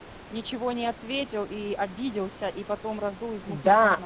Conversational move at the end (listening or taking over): taking over